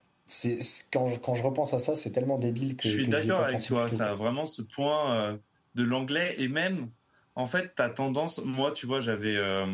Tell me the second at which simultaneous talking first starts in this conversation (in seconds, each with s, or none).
2.8 s